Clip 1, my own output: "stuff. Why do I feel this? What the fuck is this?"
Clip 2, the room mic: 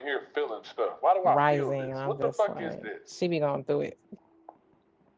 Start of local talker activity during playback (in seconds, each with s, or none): 1.2 s